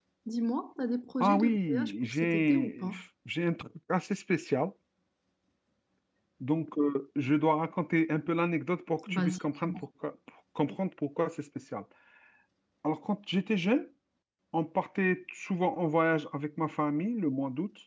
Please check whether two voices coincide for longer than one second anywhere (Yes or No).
Yes